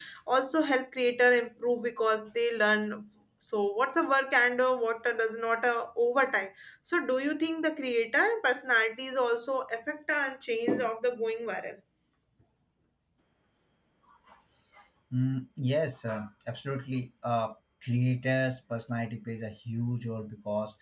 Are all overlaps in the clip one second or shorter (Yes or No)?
Yes